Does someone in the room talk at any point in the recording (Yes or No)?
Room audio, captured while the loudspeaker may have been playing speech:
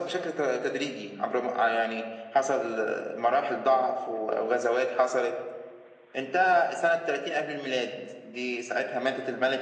No